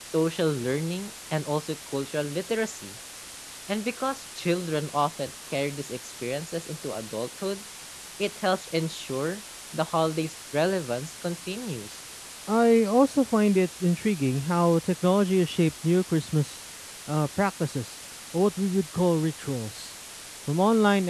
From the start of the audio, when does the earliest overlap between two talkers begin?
none

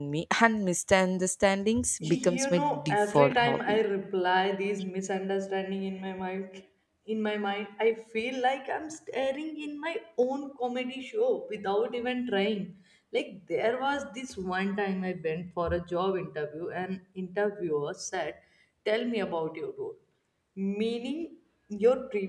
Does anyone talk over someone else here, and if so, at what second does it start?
2.0 s

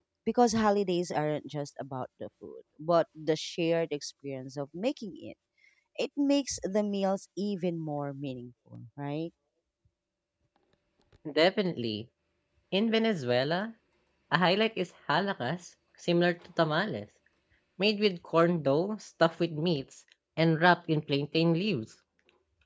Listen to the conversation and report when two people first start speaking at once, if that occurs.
none

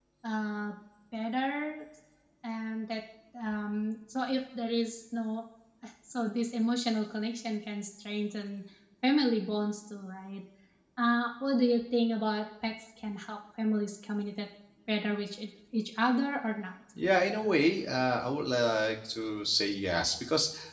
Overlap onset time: none

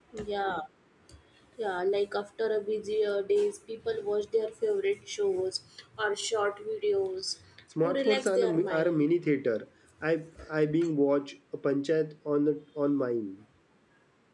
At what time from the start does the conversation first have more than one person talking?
7.8 s

